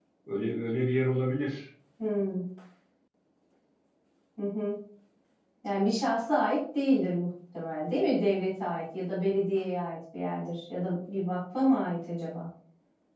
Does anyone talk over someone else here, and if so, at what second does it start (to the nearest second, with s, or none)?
none